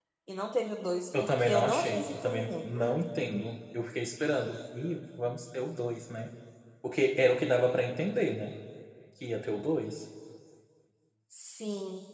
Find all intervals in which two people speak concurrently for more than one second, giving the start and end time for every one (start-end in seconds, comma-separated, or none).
1.2-2.7